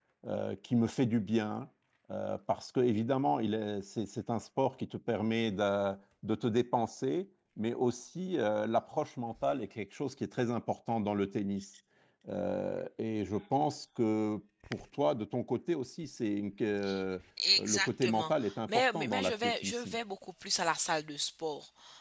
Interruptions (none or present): present